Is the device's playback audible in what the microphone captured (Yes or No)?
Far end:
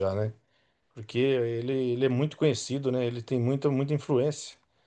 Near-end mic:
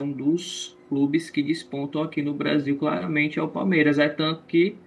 No